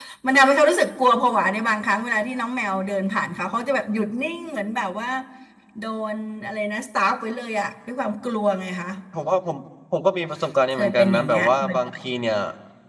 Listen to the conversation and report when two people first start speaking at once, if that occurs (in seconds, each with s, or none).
10.8 s